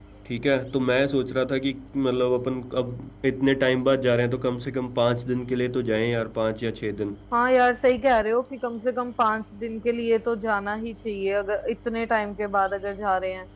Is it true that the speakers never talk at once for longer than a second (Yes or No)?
Yes